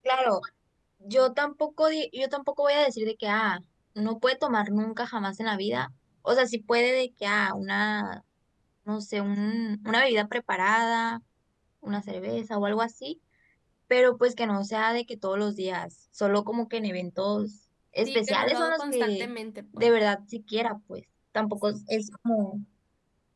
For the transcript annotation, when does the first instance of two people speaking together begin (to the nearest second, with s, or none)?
18 s